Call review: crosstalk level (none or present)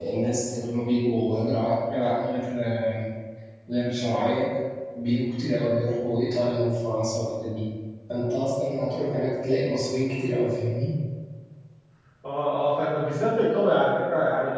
none